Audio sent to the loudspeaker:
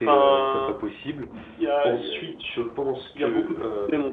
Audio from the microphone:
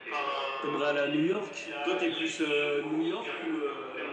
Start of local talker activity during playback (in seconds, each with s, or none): 0.6 s